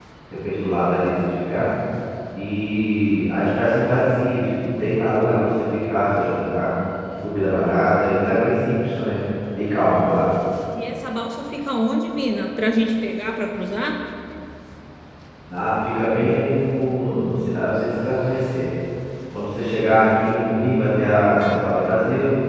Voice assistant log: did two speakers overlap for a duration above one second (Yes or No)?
No